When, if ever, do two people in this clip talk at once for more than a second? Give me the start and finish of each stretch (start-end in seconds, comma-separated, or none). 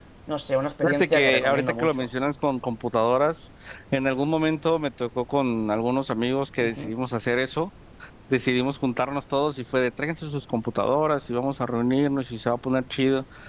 0.8-2.1